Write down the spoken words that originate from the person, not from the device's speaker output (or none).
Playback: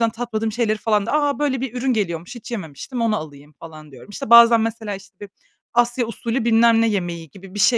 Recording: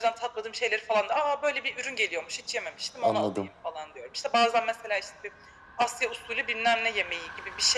Anladım.